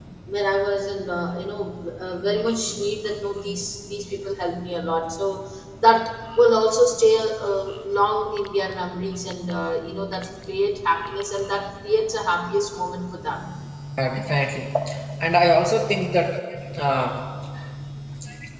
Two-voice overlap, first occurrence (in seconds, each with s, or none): none